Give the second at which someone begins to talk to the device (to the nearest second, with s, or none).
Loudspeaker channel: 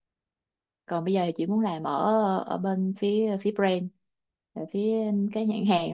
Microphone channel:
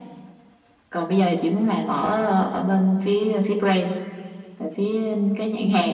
none